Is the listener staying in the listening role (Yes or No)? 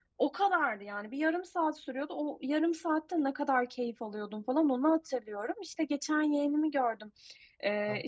Yes